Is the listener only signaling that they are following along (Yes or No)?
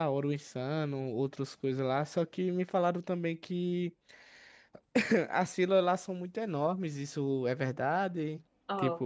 No